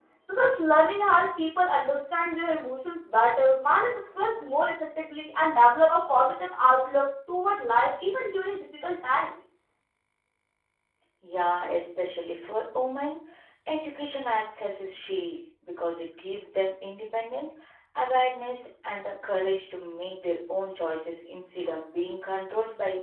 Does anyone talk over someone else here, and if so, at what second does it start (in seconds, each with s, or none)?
none